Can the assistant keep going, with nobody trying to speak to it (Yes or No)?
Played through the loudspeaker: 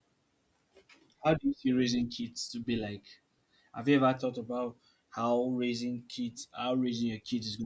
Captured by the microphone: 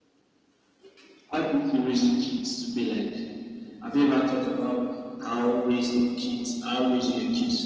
Yes